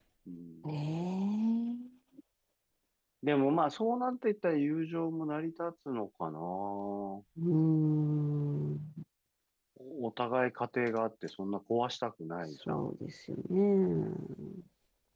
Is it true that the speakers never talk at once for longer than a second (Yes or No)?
Yes